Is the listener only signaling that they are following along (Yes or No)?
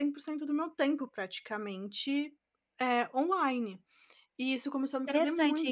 No